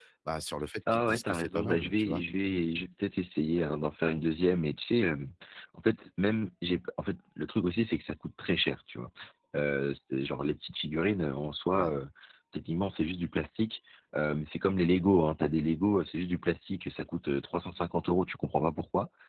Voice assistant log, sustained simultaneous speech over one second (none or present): present